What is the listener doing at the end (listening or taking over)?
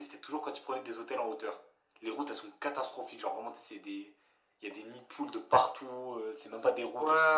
taking over